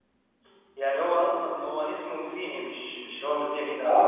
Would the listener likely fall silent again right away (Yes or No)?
No